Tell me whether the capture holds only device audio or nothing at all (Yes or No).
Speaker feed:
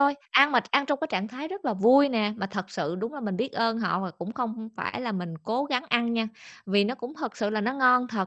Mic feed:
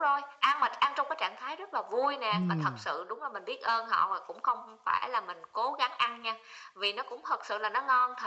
No